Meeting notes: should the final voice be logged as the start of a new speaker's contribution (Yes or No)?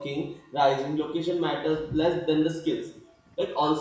No